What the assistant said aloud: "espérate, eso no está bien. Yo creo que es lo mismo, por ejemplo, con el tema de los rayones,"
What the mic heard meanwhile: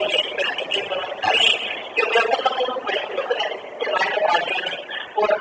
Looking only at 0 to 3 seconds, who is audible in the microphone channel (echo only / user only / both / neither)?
echo only